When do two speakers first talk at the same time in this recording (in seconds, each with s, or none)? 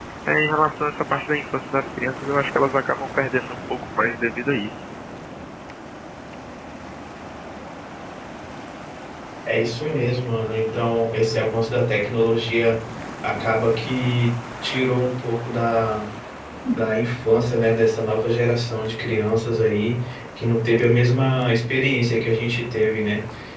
none